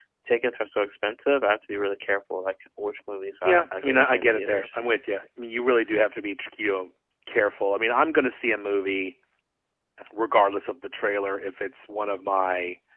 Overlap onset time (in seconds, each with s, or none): 3.4 s